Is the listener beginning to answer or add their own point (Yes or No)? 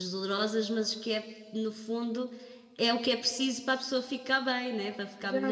Yes